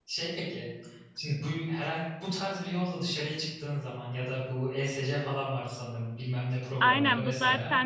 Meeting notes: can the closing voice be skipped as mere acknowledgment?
No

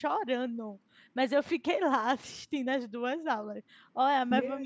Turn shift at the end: Yes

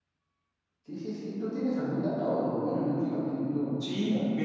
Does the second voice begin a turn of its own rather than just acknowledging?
Yes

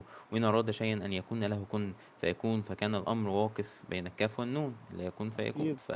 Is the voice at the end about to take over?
No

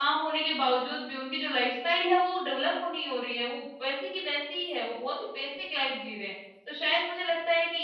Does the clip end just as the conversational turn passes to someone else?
No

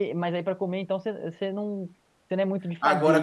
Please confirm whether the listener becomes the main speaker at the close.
Yes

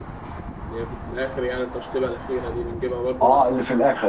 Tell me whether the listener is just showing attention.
No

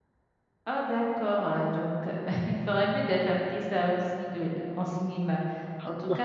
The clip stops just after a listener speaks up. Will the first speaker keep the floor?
Yes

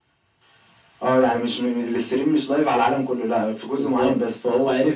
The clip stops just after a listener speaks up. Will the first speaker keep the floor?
No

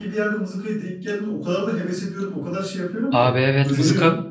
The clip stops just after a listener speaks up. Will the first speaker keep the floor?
No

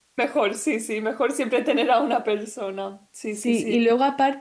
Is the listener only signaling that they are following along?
No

